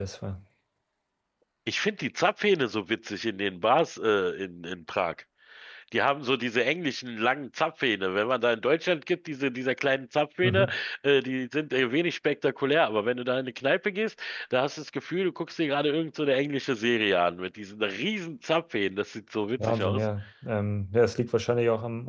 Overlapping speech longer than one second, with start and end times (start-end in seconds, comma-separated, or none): none